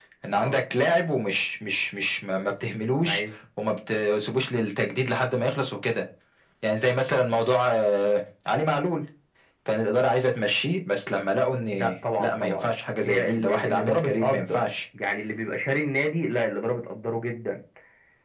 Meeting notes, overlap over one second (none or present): present